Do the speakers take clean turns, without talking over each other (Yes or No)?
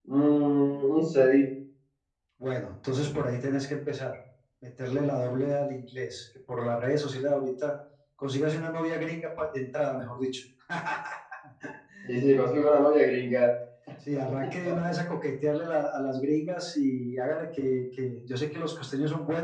Yes